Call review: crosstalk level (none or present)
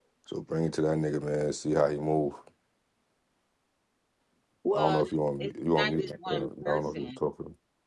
present